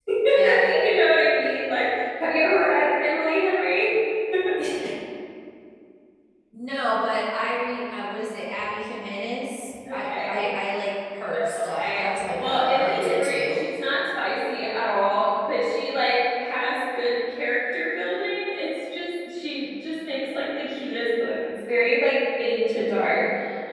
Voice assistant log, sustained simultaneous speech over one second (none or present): present